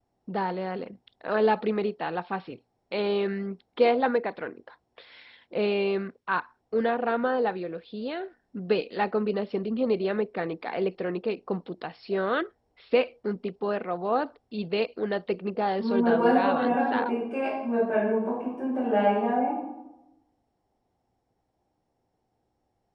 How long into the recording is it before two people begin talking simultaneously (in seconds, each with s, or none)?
15.8 s